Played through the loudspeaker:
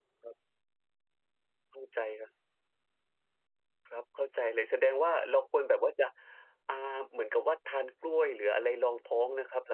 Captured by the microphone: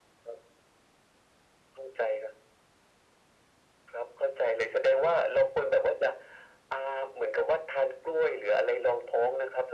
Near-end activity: none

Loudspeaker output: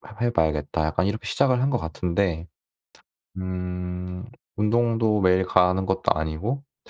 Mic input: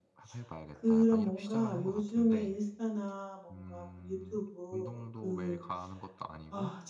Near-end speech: present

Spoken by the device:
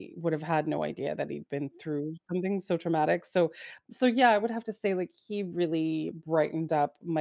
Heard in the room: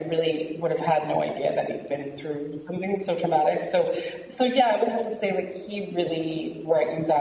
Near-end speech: none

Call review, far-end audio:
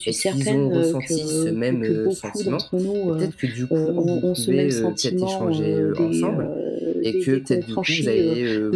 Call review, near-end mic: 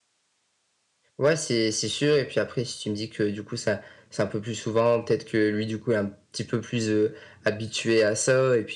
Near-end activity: present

